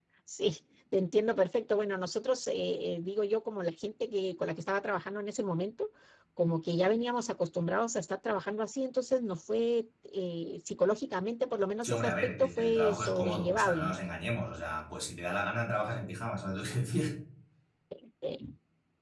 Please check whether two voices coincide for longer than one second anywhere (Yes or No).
Yes